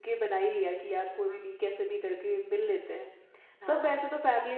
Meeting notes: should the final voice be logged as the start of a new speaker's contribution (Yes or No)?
No